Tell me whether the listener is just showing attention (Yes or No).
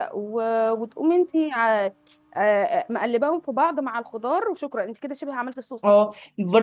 No